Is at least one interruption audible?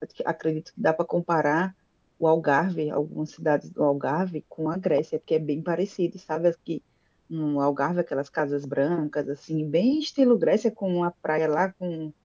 No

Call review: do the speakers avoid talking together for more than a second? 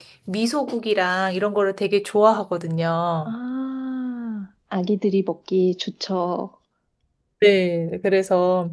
Yes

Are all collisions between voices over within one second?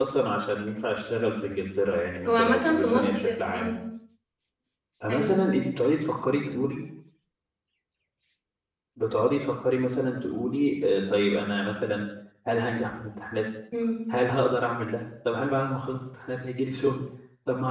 No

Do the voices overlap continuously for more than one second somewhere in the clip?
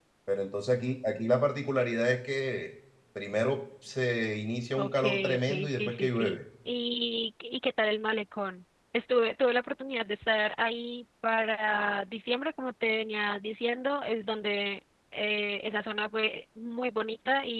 Yes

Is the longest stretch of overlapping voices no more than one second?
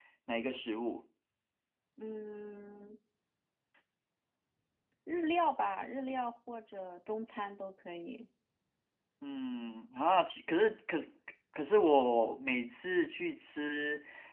Yes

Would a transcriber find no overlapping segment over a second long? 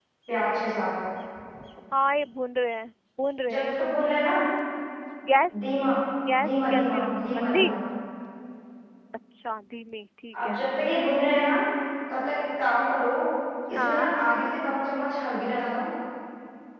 No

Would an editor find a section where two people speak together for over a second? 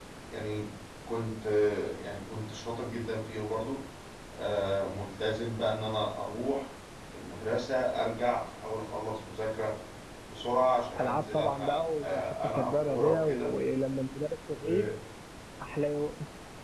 Yes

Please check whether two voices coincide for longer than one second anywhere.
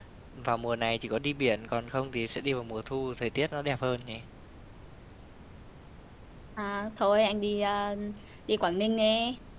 No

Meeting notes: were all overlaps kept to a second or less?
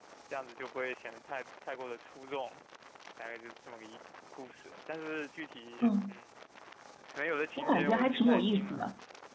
No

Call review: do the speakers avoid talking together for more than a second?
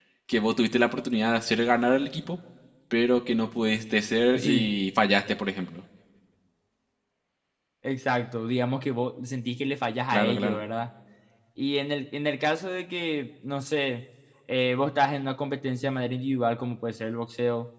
Yes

